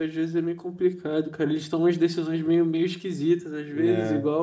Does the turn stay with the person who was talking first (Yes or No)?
Yes